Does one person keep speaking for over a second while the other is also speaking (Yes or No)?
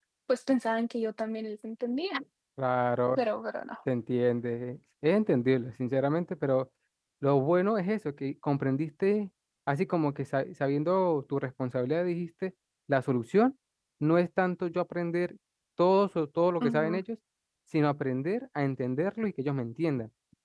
No